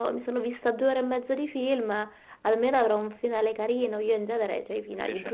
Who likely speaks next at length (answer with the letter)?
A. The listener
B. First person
B